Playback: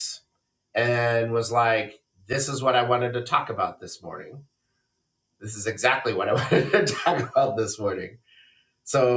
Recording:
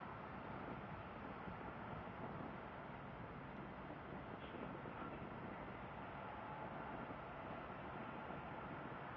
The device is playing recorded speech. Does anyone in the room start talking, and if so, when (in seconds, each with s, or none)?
none